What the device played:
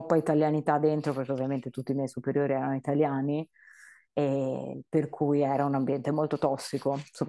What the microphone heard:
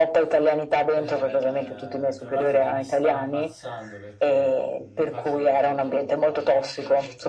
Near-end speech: present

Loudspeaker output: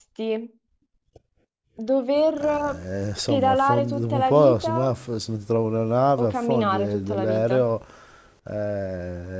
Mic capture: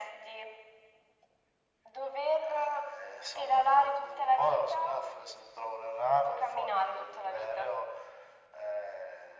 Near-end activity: none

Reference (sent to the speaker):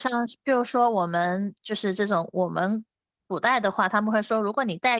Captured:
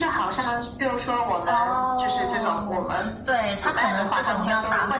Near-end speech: present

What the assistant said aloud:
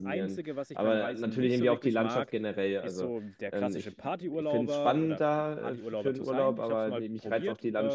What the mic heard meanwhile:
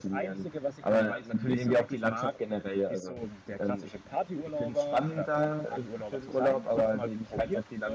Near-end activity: none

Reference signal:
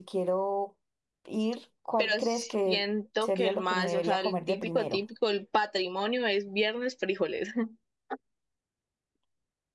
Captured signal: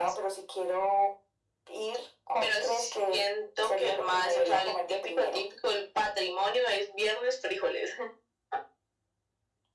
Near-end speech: none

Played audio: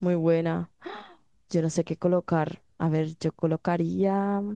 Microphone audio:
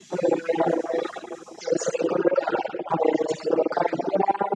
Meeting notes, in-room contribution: none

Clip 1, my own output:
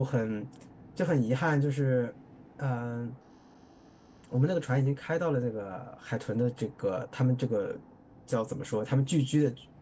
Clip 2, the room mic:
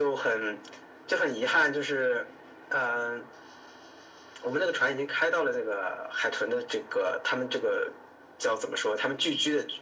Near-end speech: none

